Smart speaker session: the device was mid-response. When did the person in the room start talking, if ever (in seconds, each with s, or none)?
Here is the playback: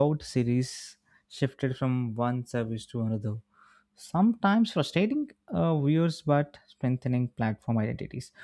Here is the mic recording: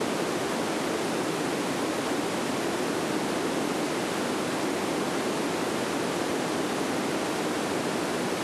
none